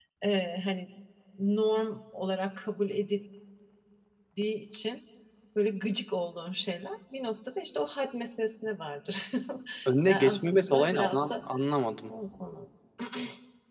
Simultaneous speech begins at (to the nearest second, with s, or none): 10 s